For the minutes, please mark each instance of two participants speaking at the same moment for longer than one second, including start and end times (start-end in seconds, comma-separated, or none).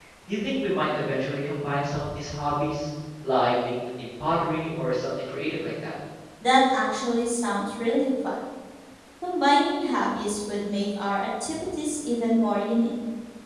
none